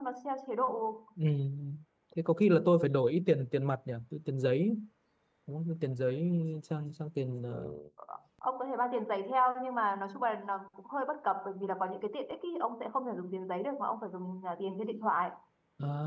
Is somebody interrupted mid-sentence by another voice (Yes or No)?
No